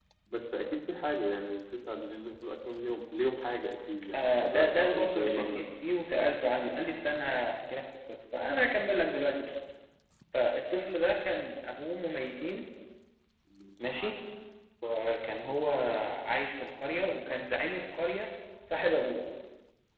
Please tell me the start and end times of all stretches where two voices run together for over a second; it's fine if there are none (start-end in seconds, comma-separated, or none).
4.2-5.6